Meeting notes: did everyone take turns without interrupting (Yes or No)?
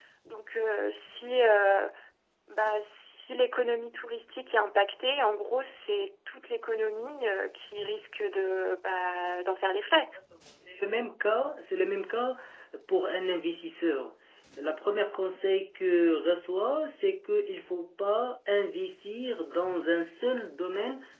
Yes